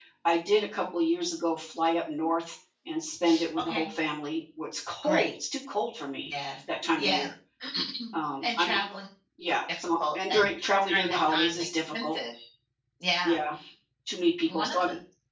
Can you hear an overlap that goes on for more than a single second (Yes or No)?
Yes